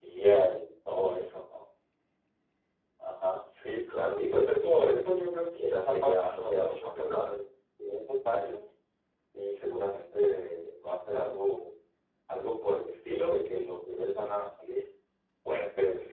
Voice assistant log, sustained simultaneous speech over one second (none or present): present